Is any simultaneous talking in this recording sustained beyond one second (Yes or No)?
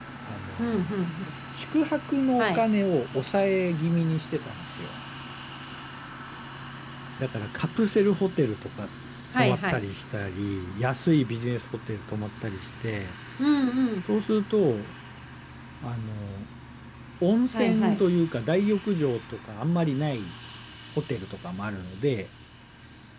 No